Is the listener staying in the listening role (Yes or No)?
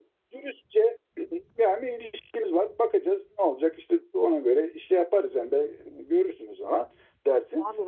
No